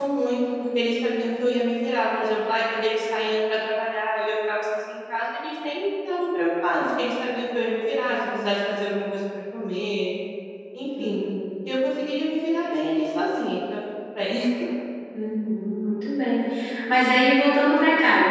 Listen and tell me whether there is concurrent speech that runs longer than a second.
No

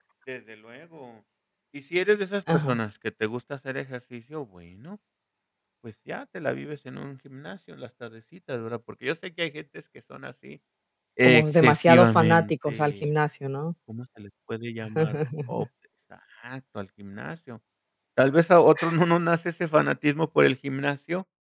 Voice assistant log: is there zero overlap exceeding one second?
No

